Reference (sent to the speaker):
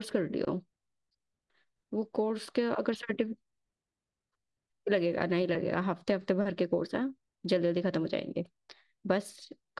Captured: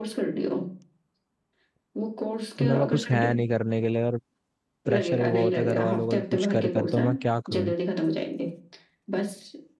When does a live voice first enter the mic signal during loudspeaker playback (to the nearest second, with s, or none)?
3 s